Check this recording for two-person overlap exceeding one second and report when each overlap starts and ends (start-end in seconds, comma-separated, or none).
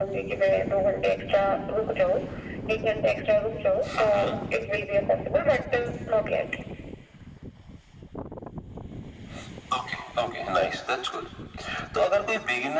none